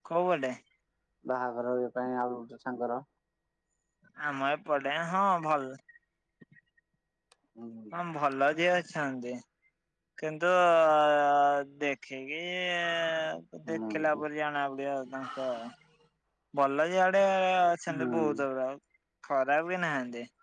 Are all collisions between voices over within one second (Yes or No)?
Yes